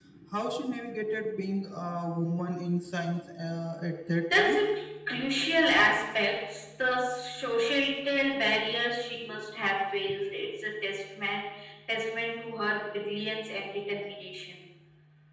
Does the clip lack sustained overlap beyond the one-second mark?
Yes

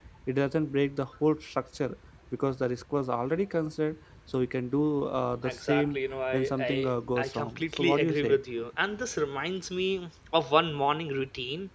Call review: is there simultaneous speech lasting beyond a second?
Yes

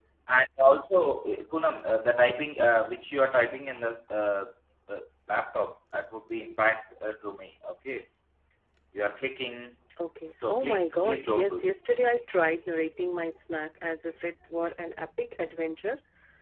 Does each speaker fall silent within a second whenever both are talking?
No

